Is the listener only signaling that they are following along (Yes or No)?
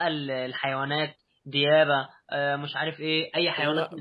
No